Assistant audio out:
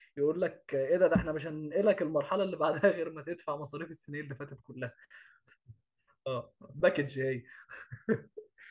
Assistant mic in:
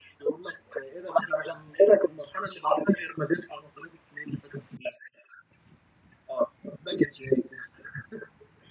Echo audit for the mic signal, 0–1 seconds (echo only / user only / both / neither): echo only